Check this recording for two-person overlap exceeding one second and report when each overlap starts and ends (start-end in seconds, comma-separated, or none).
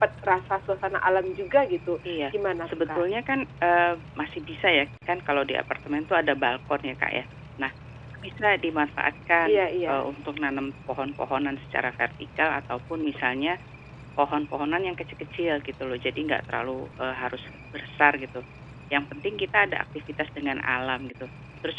none